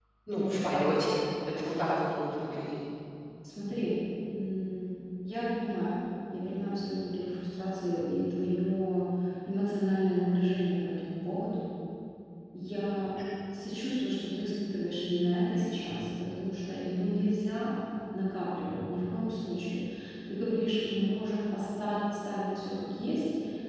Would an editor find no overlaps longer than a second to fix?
Yes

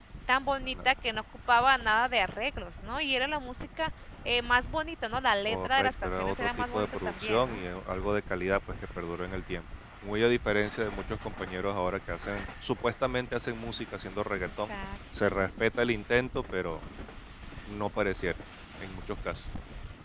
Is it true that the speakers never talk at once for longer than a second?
No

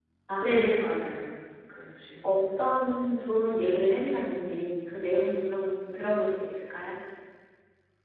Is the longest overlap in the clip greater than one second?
Yes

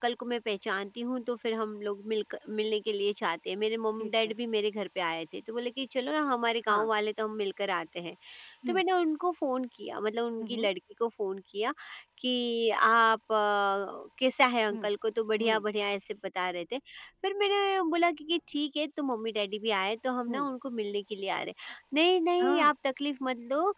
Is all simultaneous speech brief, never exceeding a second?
Yes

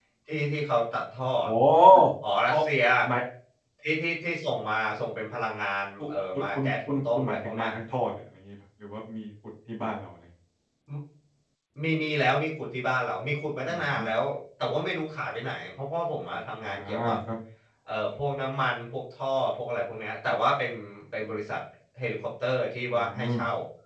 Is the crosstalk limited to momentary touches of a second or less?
No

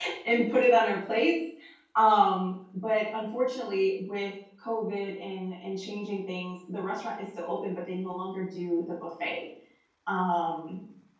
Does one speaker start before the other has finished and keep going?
No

